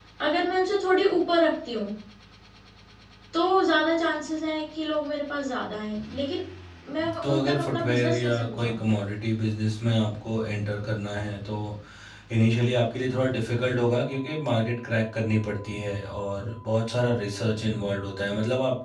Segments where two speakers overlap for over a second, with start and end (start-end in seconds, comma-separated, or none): 7.2-8.8